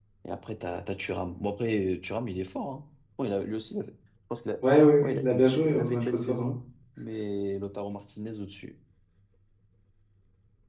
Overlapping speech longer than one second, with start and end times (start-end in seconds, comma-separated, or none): 5.0-6.5